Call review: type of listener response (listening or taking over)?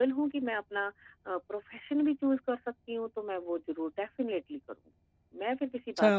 taking over